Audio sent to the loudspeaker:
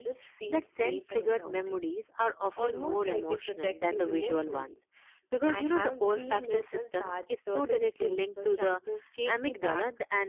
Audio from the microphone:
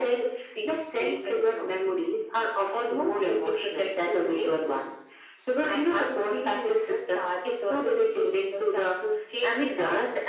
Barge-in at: none

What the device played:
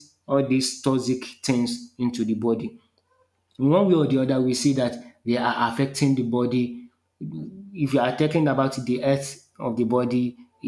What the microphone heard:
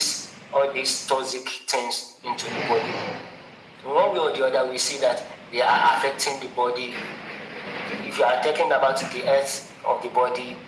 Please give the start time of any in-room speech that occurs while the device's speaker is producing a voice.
none

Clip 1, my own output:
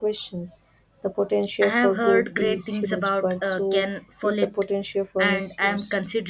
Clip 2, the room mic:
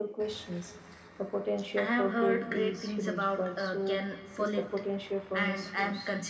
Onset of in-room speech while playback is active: none

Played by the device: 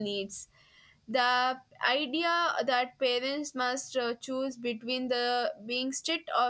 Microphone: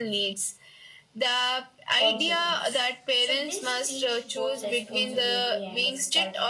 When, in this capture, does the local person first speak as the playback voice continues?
1.9 s

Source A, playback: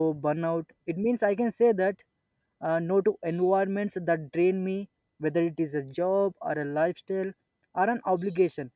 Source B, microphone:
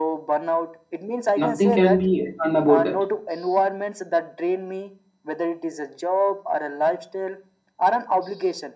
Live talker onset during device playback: 1.3 s

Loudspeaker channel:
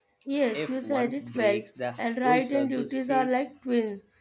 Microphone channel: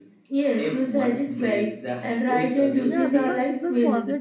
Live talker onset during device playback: 2.9 s

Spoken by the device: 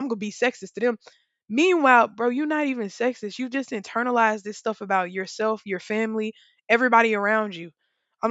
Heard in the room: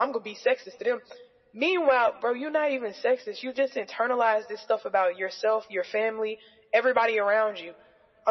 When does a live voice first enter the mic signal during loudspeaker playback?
none

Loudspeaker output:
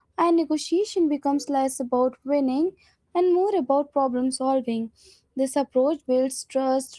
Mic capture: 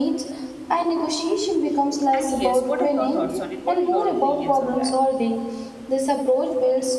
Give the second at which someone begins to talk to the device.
2.1 s

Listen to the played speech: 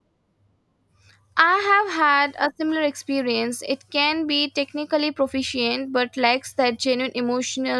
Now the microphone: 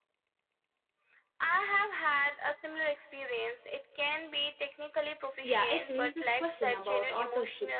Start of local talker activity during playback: 5.4 s

